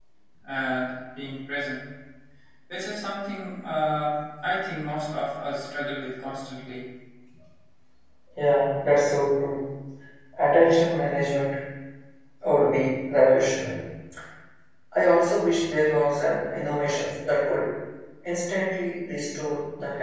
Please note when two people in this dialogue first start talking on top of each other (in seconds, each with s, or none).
none